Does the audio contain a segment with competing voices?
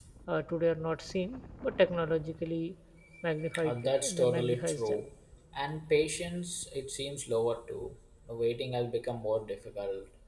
Yes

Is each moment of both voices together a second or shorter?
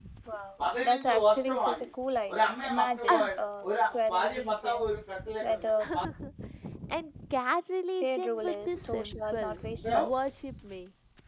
No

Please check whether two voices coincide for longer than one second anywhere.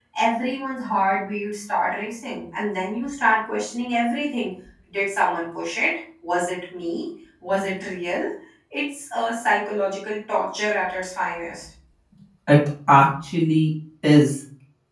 No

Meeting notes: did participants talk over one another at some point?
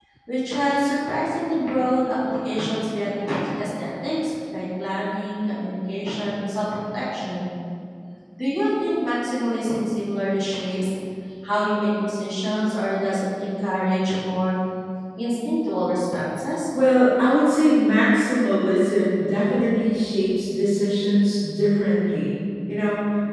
No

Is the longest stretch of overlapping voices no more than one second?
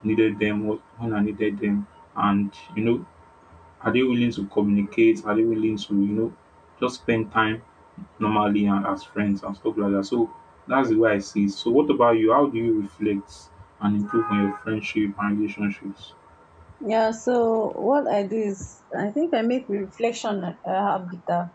Yes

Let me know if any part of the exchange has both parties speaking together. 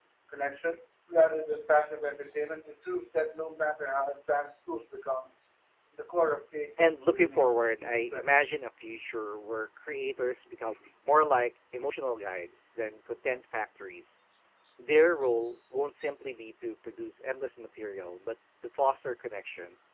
Yes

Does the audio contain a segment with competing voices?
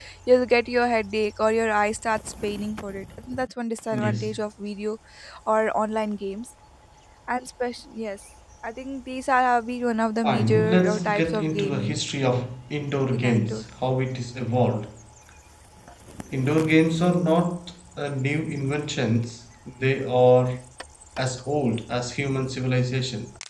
Yes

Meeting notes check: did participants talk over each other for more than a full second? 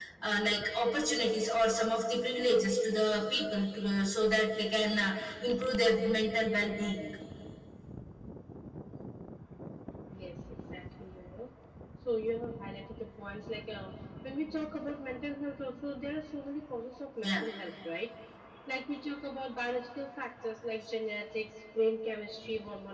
No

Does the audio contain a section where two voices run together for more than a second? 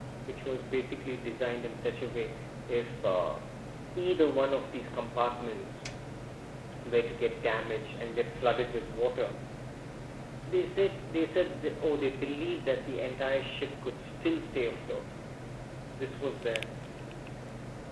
No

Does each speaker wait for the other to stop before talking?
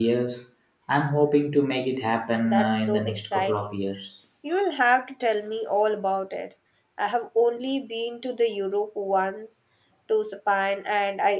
No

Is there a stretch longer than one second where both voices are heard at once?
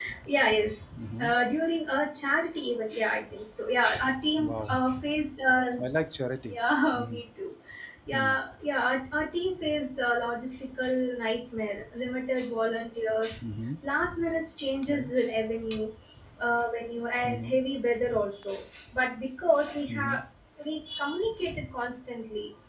No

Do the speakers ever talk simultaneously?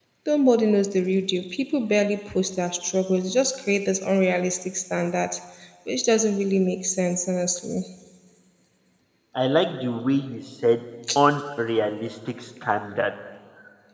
No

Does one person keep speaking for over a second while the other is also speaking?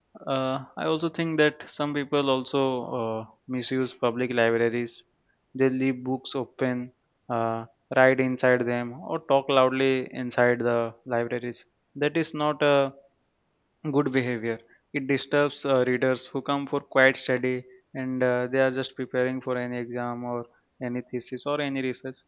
No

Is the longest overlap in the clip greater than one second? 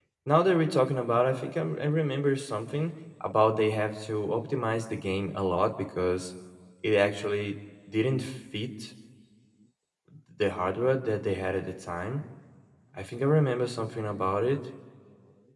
No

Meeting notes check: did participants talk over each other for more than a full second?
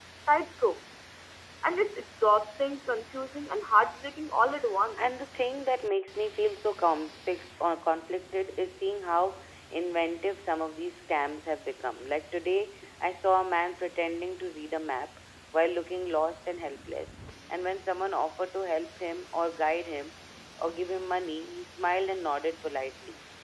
No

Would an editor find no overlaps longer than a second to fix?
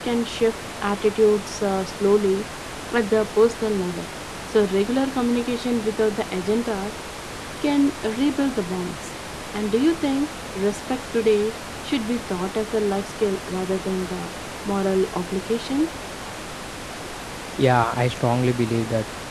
Yes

